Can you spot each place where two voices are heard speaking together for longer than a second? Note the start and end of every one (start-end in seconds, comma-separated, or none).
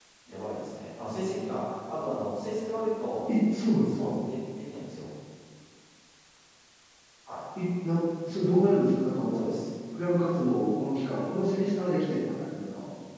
none